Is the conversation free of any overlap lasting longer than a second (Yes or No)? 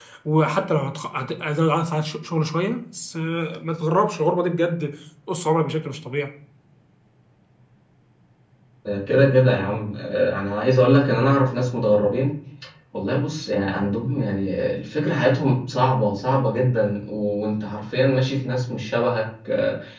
Yes